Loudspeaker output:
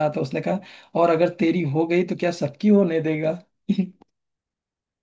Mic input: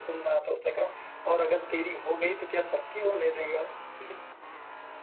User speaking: No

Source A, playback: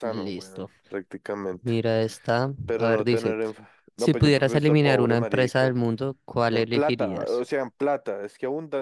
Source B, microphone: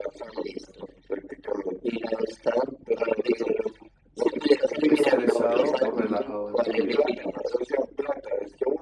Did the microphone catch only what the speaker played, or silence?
No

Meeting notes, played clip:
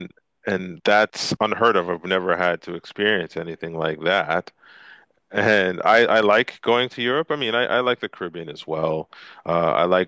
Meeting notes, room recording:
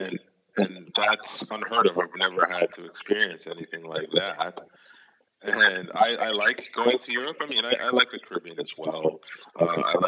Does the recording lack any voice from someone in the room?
Yes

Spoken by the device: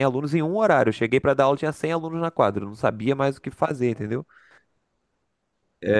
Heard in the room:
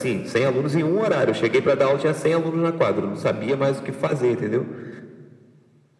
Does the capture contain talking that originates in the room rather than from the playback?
No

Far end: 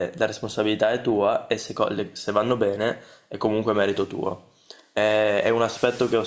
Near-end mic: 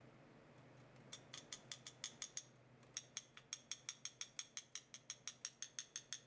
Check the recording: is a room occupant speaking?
No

